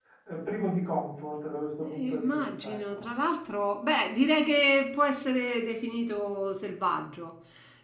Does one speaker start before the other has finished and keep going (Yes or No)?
Yes